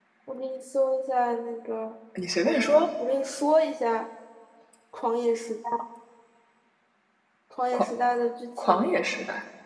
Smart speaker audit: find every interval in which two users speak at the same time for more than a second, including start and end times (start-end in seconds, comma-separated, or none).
none